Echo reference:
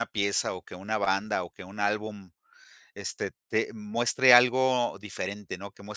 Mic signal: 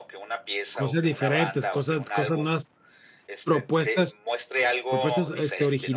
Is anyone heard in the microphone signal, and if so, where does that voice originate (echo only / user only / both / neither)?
both